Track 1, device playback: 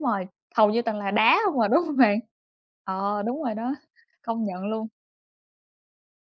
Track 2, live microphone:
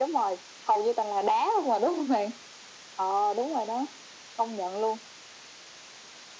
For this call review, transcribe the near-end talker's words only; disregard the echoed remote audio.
none

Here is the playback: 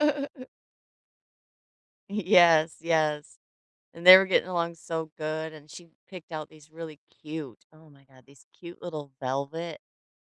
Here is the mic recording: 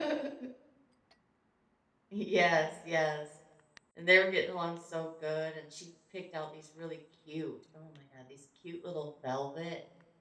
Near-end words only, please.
none

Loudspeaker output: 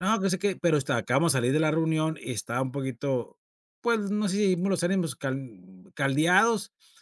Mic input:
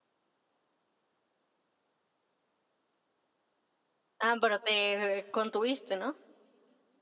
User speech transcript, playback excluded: Ah, pero te eh, contuviste, ¿no?

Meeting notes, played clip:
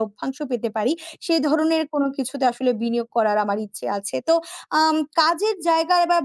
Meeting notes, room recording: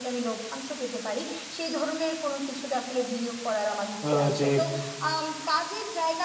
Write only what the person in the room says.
আ যে

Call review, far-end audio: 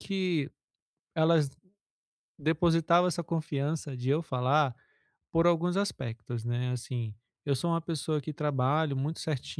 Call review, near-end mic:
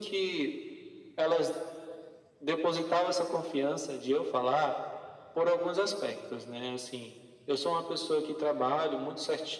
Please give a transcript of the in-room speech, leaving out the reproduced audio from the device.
none

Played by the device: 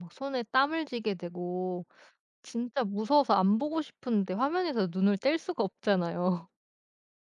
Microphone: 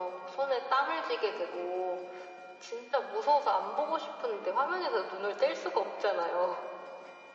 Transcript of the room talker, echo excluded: none

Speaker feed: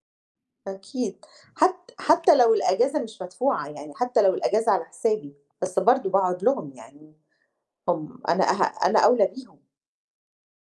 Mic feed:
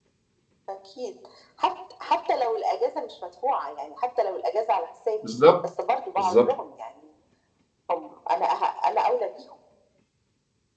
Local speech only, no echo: بالضبط، بالضبط.

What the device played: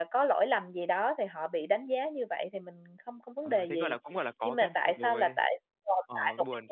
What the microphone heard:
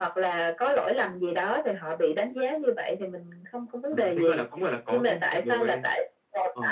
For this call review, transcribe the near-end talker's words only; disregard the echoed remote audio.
none

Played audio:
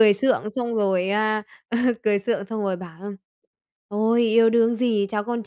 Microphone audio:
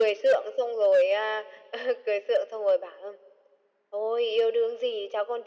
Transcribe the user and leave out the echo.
none

